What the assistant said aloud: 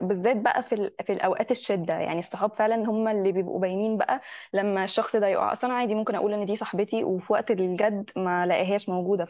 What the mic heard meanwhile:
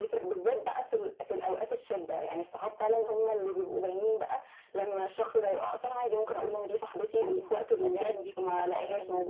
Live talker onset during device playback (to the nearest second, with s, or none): 7 s